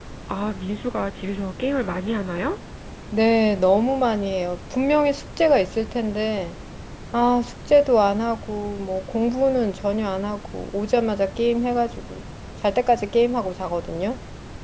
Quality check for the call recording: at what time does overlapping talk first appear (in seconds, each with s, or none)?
none